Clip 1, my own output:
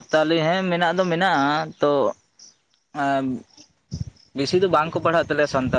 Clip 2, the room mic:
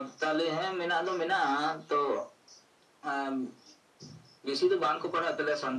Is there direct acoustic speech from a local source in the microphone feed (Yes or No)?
No